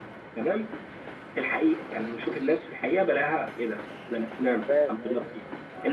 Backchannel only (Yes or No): Yes